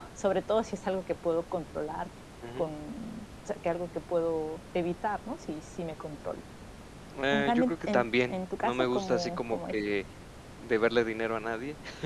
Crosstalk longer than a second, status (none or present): present